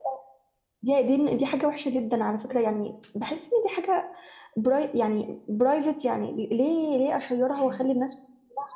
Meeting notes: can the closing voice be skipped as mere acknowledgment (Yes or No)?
Yes